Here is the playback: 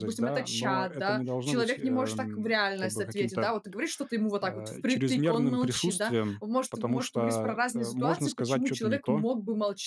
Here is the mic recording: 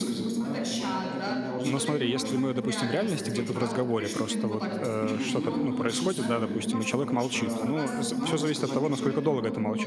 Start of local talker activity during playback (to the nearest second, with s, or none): 2 s